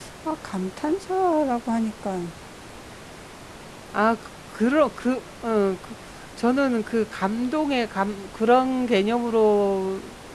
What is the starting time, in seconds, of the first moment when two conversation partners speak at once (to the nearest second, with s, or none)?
none